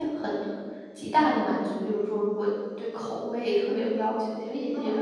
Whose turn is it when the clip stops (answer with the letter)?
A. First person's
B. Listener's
A